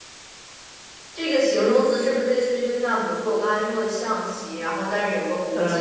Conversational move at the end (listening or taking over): taking over